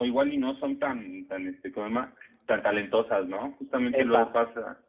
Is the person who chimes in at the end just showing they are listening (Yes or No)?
Yes